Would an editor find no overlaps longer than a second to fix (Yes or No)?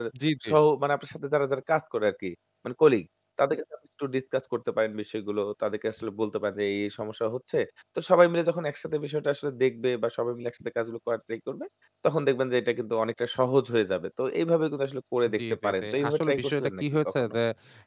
No